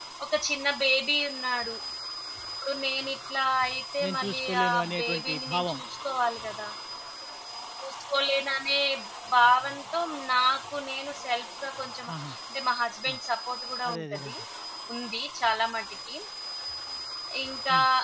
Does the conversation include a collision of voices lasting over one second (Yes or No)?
Yes